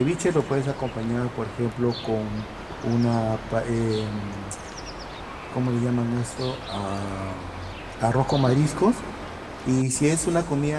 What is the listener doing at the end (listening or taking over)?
listening